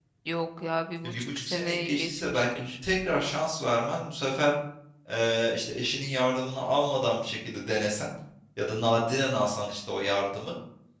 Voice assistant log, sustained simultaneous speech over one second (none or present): present